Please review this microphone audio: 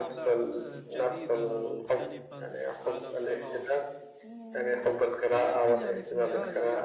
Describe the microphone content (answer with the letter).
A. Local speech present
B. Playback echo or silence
A